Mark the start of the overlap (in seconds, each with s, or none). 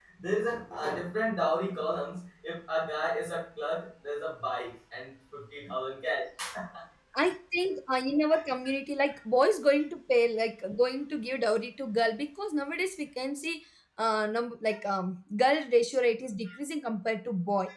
none